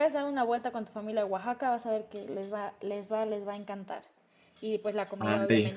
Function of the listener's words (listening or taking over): listening